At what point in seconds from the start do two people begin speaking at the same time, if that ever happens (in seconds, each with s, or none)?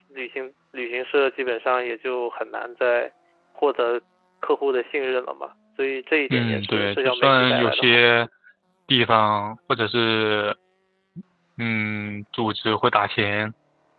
6.3 s